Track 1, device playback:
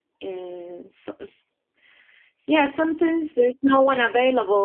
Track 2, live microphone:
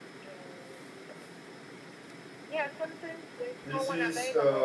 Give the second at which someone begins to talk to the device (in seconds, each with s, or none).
3.6 s